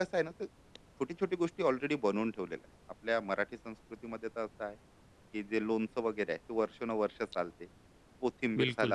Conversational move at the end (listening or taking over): listening